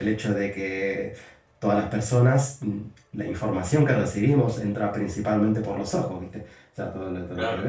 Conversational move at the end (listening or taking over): listening